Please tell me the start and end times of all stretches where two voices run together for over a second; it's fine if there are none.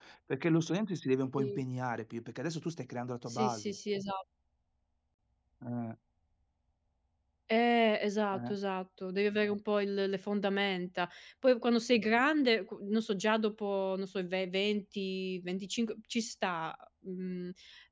none

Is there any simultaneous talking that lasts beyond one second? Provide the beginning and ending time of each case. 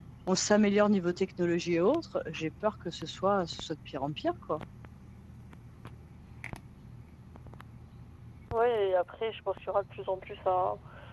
none

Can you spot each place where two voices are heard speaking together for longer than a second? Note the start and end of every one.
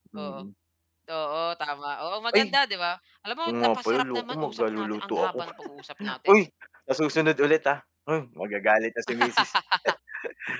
3.5-5.4

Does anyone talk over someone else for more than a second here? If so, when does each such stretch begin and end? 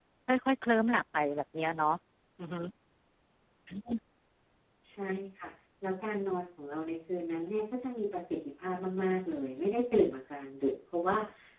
none

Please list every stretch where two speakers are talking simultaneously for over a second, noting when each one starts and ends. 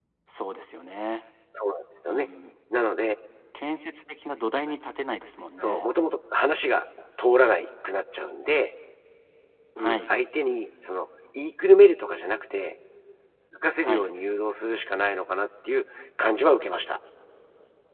none

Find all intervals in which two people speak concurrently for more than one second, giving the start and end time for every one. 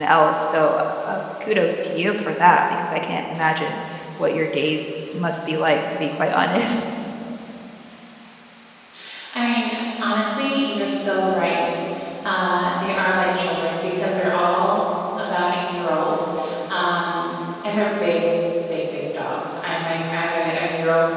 none

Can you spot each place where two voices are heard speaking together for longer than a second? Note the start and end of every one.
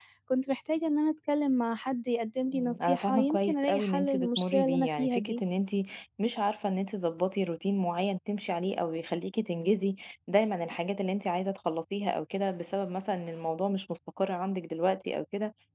2.5-5.2

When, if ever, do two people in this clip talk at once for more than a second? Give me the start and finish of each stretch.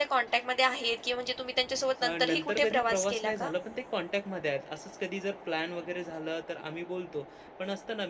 2.0-3.5

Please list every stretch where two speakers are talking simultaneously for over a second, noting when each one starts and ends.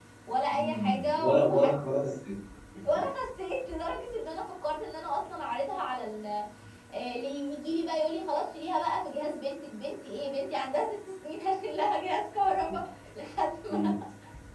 0.5-1.7

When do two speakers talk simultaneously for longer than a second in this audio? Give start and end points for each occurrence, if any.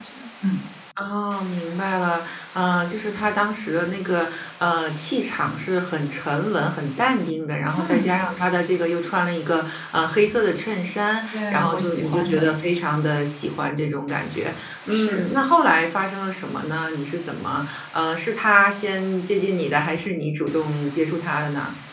11.3-12.5

